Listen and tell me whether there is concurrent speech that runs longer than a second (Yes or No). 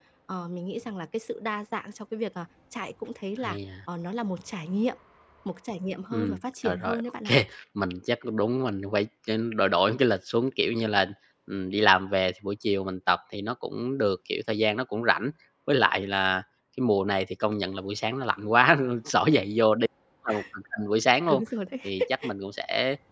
Yes